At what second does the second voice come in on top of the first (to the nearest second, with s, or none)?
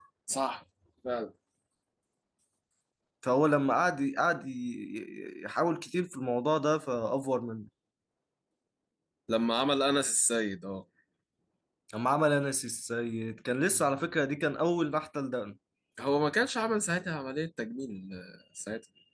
none